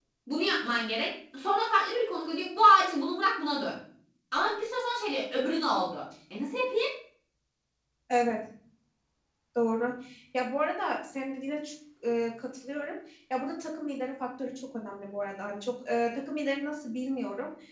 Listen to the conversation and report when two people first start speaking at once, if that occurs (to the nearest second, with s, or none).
none